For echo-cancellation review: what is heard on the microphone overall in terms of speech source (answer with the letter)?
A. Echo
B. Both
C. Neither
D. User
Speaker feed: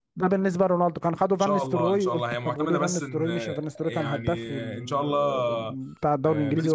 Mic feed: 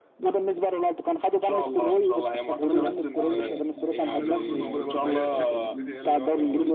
B